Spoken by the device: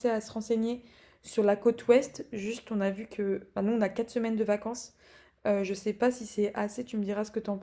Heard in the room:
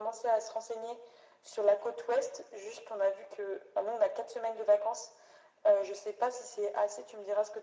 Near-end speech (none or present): none